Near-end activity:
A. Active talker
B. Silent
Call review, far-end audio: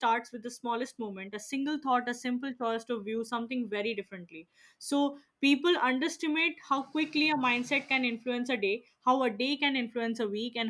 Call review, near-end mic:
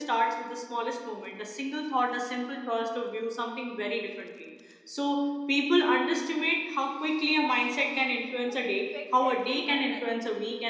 A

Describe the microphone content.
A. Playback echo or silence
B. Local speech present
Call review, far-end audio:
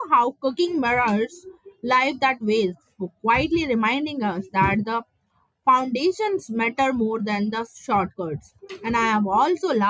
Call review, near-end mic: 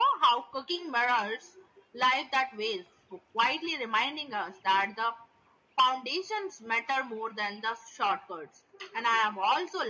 A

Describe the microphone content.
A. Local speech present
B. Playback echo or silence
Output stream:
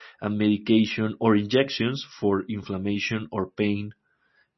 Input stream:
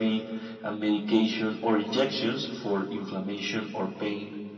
B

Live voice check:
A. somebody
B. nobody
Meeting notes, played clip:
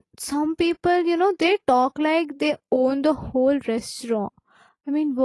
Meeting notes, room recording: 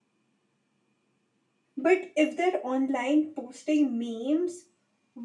A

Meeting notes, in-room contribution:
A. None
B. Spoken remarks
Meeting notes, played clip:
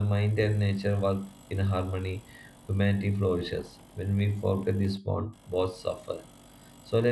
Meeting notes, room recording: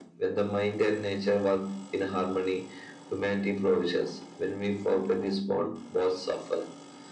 A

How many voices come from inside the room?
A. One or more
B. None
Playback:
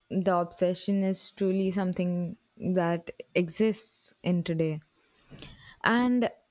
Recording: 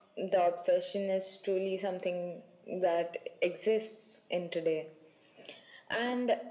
B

